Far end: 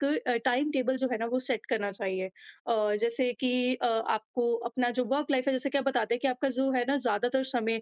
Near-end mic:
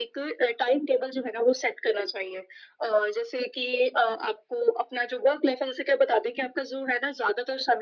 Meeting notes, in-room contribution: none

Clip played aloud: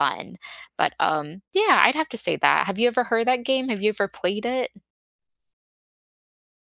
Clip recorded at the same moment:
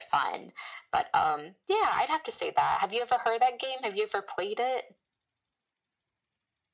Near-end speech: none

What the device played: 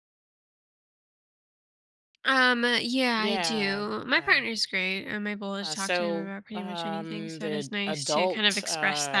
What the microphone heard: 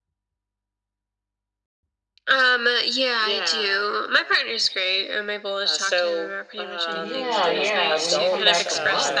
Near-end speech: present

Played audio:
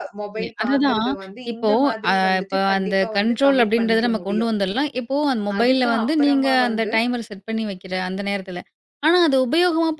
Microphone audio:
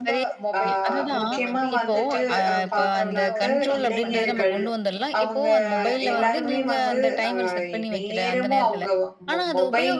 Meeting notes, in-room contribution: present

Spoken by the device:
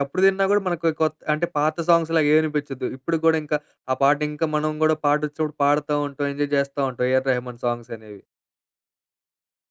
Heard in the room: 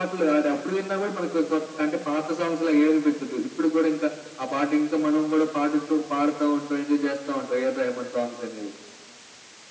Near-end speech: none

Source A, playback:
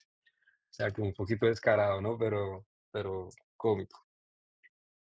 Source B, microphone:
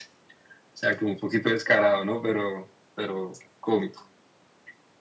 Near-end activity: none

